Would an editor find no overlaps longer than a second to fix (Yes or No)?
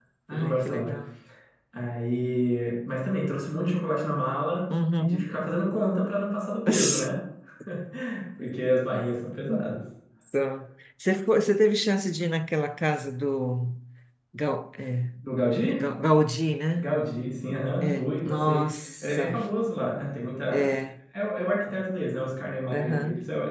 No